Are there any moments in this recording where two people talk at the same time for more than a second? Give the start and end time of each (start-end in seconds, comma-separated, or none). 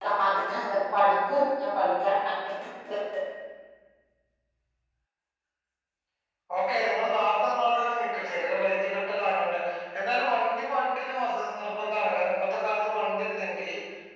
none